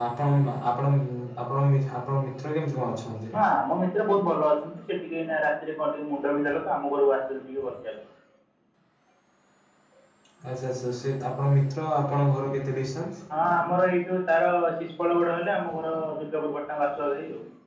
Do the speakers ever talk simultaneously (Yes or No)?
No